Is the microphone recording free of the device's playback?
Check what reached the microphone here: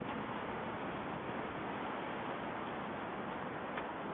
Yes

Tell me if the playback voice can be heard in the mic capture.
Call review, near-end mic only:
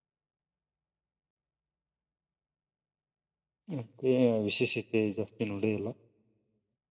No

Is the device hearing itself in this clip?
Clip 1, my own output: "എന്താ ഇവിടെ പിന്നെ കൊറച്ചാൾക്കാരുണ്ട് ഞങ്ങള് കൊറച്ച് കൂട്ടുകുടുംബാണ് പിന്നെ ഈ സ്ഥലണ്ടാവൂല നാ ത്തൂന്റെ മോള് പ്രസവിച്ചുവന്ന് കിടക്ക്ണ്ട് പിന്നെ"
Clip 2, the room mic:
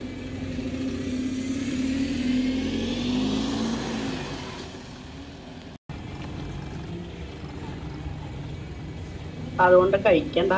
No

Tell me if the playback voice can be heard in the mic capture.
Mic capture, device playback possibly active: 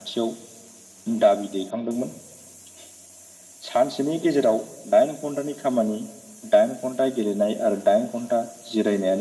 Yes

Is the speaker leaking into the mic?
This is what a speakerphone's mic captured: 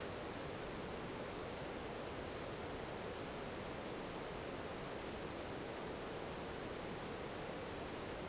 No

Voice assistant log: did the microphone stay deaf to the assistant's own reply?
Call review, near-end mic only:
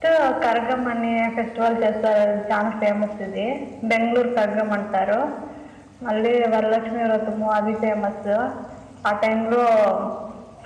Yes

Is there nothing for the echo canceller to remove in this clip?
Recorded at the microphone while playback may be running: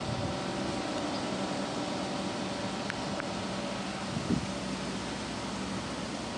Yes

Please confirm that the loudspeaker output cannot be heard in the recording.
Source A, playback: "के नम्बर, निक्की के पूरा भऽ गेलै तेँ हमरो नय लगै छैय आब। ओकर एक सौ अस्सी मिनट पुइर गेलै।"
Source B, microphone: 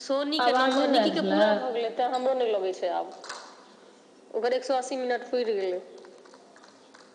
No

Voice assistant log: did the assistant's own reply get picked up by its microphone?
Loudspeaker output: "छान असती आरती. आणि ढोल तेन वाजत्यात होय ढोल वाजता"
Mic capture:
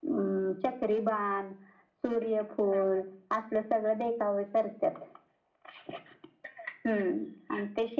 No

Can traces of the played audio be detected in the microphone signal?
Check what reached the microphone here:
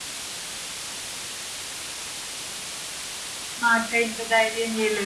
No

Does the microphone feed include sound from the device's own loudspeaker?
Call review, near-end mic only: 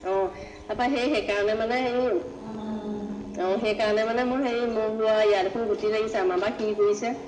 Yes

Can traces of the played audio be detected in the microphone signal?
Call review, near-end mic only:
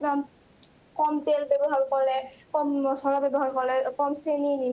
No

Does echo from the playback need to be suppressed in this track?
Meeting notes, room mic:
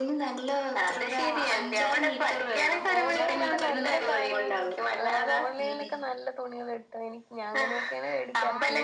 Yes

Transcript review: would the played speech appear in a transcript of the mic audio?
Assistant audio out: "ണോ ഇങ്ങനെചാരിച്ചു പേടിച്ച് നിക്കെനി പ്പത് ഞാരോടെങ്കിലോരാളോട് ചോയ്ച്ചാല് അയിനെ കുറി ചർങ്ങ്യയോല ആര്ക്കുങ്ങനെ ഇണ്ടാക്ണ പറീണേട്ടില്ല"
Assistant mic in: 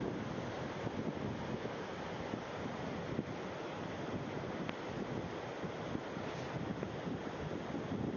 No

